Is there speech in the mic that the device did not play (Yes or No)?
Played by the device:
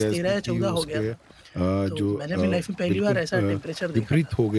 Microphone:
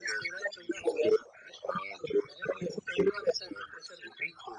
No